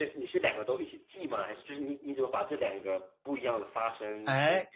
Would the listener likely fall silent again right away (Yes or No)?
No